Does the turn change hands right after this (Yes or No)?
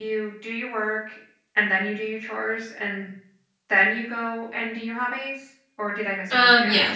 Yes